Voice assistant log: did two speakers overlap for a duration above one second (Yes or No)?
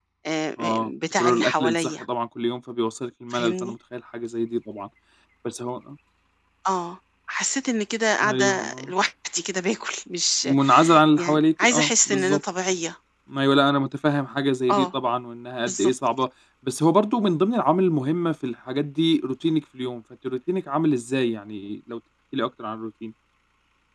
Yes